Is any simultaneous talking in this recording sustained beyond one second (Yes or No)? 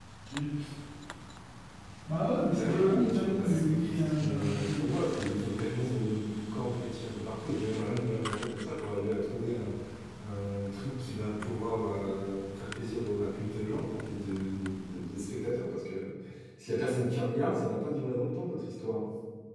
Yes